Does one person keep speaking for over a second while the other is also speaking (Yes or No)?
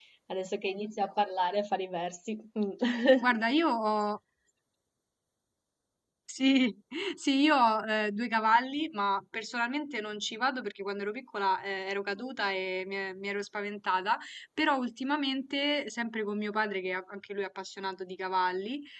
No